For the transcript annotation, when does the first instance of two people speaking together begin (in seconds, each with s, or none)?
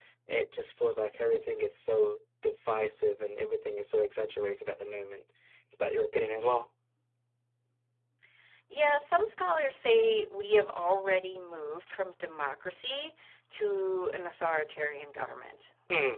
none